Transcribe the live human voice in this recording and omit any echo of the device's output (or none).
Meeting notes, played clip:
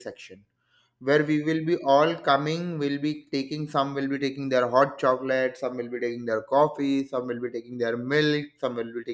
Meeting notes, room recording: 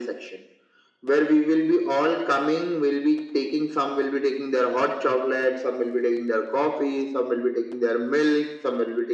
none